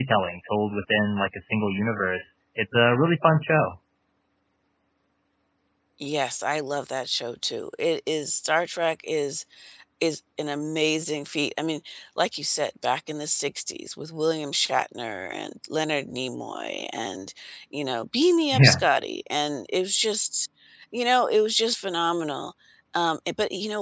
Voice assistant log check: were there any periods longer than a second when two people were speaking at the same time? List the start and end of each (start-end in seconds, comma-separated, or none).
none